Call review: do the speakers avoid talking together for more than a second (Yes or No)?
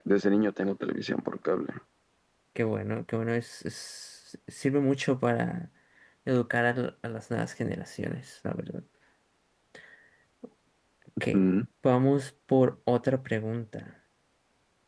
Yes